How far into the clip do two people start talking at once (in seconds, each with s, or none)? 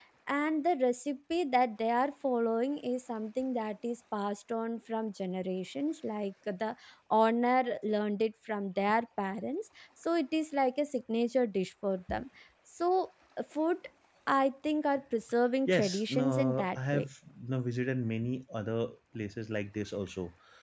15.7 s